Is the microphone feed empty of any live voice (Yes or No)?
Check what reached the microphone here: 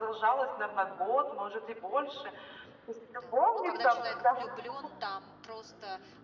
No